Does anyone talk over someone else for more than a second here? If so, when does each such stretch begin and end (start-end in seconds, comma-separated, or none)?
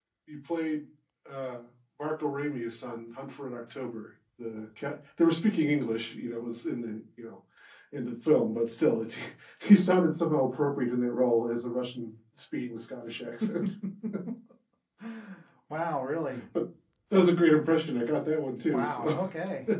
none